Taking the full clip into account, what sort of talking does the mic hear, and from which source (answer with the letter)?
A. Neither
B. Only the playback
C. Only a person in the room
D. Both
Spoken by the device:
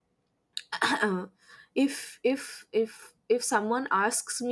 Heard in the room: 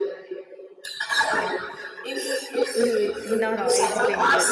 D